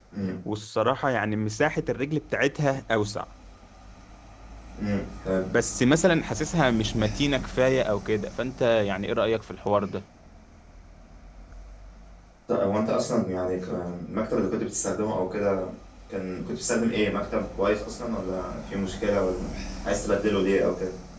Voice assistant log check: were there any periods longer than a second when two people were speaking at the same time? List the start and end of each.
none

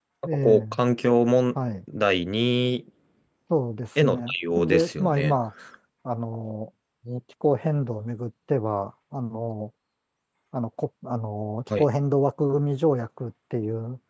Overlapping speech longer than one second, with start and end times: 4.0-5.3

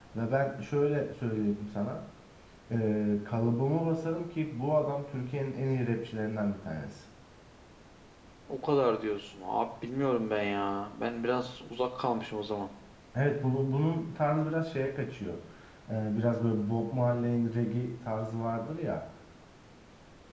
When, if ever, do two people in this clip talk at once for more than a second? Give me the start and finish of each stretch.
none

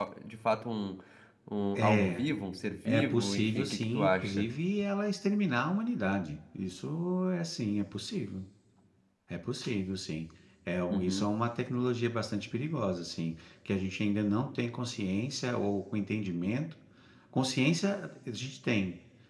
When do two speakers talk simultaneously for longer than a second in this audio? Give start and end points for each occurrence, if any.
2.9-4.5

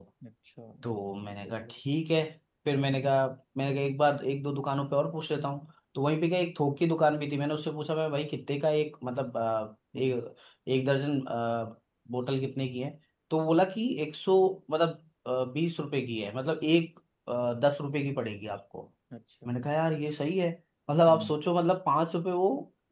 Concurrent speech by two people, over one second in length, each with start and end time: none

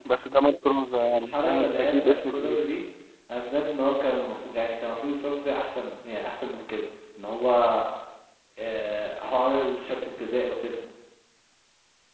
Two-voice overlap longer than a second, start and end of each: 1.1-2.6

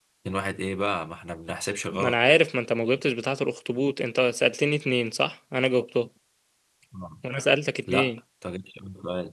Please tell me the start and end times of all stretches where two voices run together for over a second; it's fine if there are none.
none

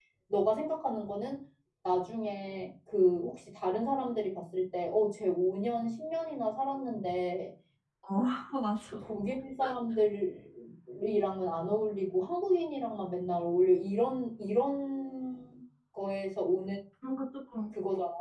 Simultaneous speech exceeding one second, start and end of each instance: none

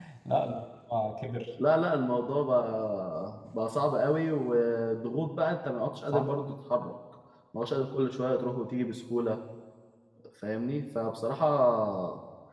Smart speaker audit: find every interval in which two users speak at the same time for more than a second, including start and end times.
none

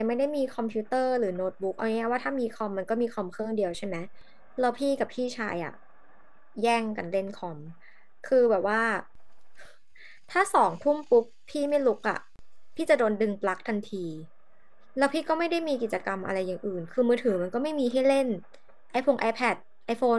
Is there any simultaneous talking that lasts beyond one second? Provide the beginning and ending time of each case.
none

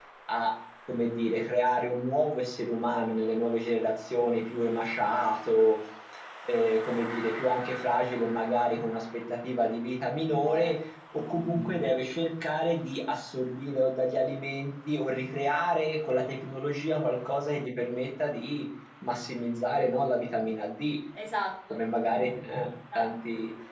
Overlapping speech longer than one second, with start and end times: none

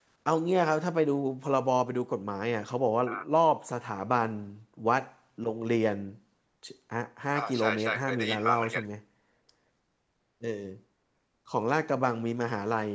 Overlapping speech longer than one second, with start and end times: 7.3-8.8

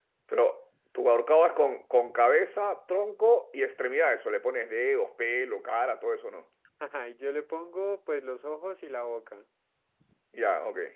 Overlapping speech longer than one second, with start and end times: none

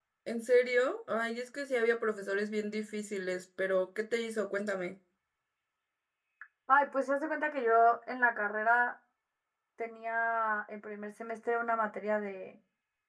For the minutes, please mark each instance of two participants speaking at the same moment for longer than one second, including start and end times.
none

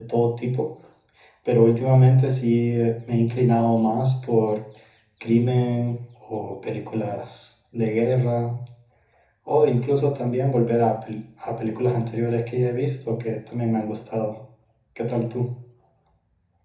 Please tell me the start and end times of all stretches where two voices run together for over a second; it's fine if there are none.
none

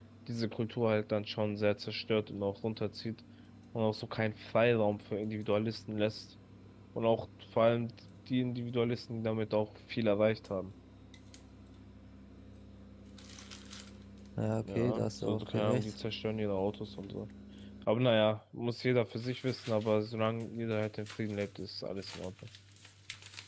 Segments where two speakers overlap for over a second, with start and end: 14.6-15.9

